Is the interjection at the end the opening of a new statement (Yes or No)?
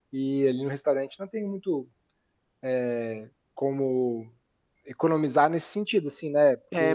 Yes